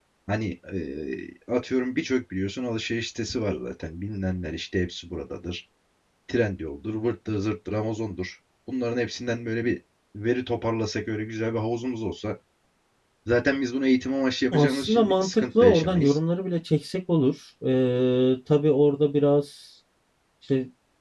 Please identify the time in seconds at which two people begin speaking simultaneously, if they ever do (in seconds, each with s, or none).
14.5 s